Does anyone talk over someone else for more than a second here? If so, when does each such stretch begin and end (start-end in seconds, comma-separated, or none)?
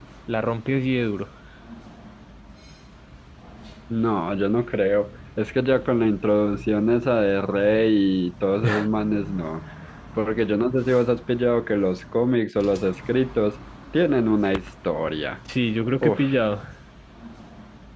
none